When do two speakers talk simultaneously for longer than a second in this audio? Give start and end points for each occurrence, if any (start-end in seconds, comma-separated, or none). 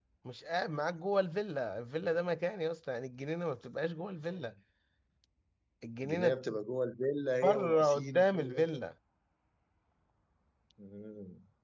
7.4-8.7